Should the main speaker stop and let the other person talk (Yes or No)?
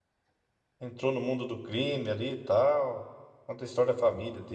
No